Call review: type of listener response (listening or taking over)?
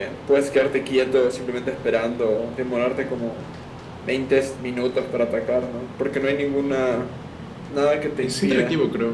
taking over